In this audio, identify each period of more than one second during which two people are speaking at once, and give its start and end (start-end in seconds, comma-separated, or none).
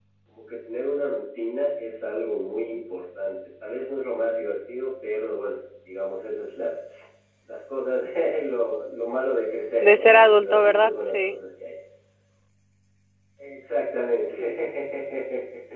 9.8-11.4